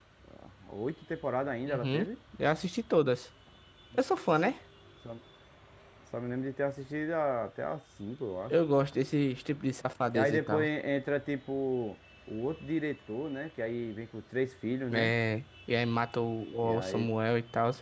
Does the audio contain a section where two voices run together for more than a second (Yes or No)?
No